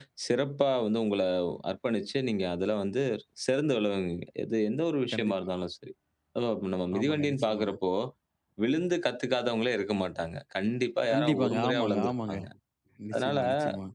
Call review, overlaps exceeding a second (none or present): present